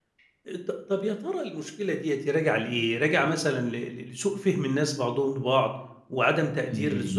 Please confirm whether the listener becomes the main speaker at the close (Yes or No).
No